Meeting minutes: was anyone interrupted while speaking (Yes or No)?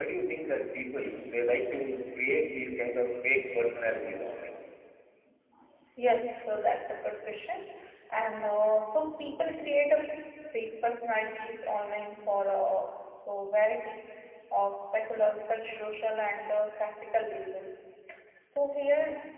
No